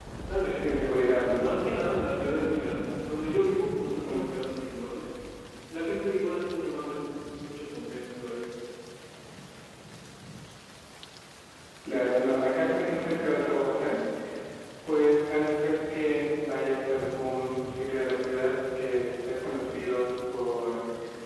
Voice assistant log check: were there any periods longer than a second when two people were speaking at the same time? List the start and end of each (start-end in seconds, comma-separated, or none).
none